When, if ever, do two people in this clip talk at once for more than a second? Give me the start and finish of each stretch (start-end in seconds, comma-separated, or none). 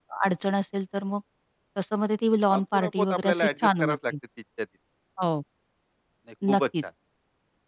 2.5-4.1